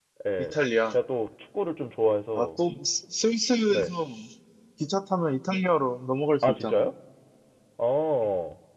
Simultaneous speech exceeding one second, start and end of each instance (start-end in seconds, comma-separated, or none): none